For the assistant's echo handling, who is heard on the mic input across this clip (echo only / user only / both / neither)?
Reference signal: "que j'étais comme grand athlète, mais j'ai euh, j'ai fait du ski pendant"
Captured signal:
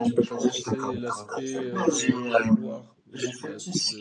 both